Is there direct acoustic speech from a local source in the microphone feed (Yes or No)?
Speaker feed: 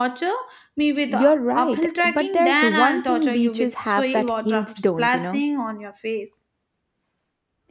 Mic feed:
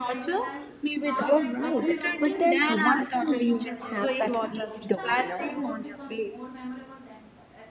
Yes